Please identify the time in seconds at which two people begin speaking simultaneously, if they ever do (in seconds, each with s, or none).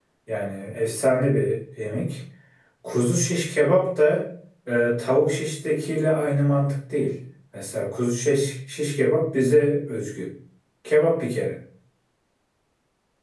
none